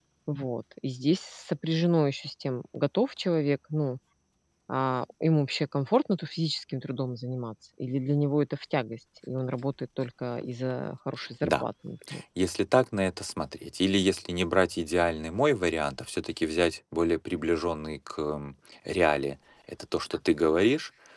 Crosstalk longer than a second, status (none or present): none